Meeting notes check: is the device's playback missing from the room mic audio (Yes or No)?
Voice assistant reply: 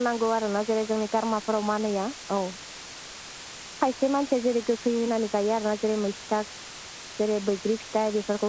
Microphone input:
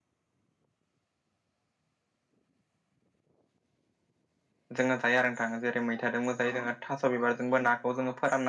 Yes